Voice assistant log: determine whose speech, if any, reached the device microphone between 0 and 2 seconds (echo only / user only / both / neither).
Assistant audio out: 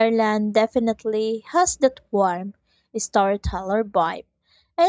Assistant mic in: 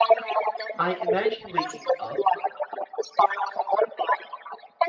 both